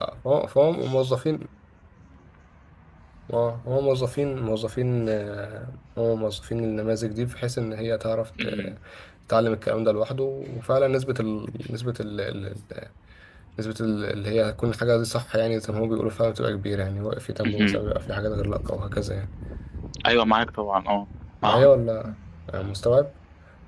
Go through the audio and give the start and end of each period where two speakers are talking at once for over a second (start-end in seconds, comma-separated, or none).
none